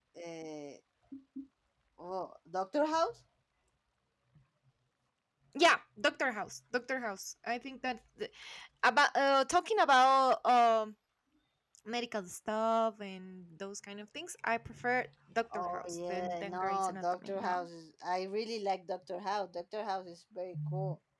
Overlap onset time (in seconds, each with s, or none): 15.5 s